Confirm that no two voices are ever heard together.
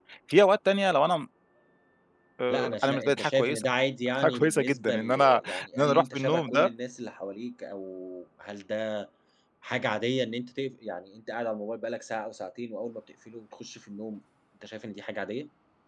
No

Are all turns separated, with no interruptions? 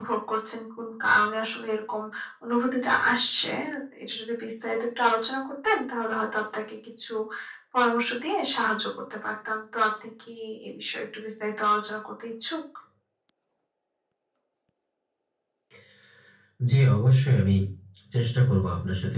Yes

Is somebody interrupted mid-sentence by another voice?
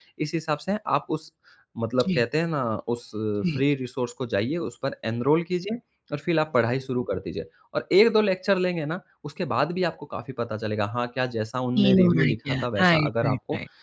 Yes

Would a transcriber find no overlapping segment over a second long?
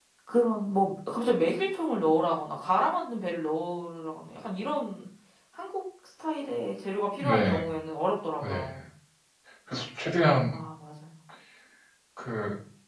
Yes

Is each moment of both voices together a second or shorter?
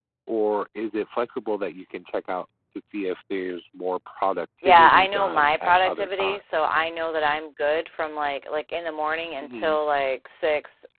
No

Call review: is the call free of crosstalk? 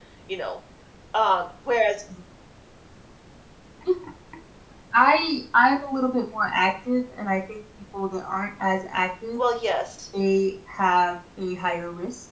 Yes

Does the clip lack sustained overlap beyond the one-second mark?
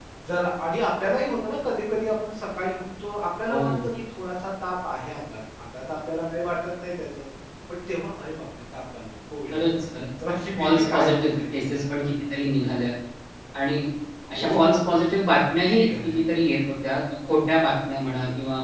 No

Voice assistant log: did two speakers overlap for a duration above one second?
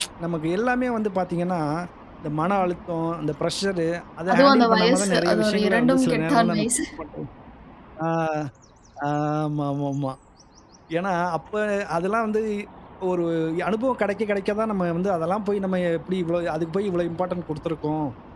Yes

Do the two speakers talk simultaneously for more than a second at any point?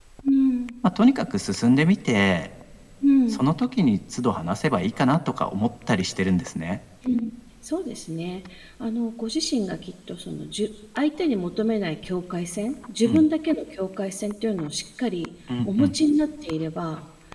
No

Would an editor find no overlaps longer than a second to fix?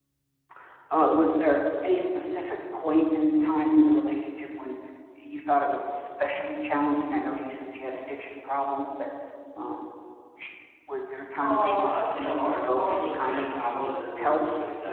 No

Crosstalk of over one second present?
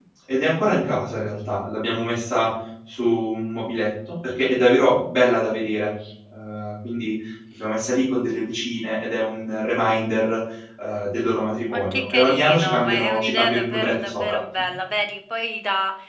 Yes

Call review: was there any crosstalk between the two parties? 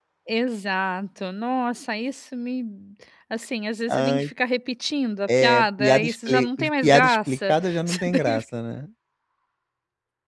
Yes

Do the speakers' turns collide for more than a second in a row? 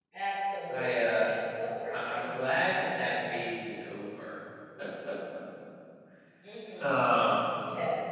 Yes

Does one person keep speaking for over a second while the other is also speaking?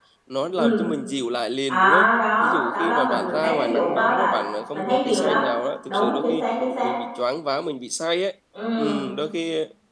Yes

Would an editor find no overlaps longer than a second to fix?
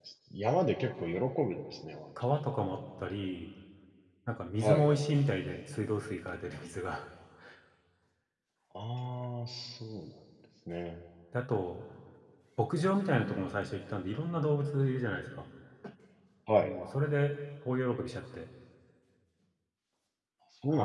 Yes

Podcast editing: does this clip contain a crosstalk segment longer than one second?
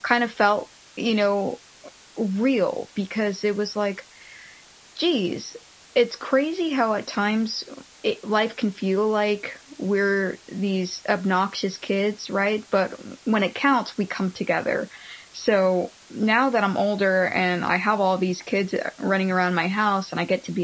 No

